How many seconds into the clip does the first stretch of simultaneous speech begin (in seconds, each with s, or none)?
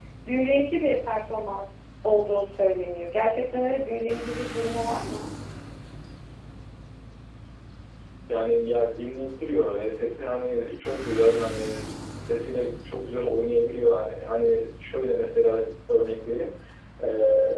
none